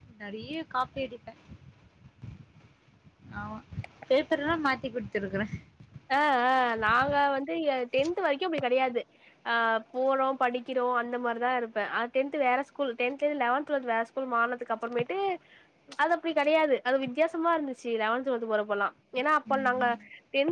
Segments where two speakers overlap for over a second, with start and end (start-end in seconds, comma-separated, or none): none